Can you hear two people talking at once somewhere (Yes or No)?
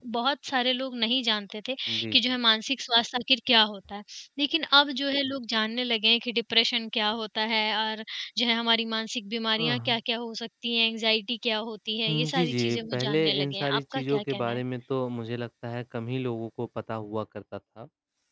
Yes